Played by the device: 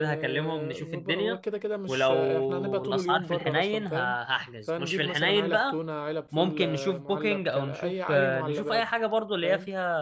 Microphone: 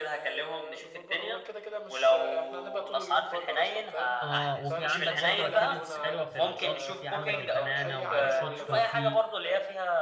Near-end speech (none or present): present